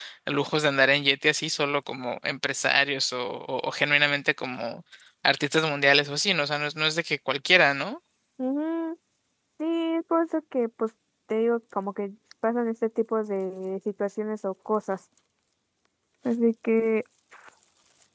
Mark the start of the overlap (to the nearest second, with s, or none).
none